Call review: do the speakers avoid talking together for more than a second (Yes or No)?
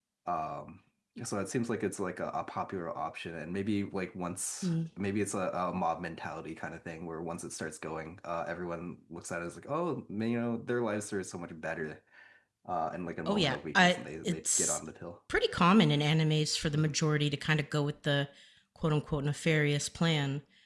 No